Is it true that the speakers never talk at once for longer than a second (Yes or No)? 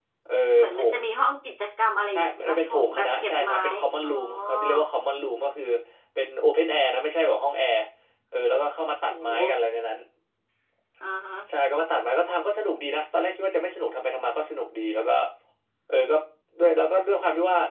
No